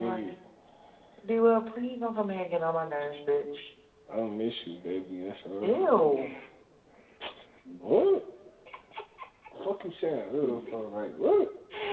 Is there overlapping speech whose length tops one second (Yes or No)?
No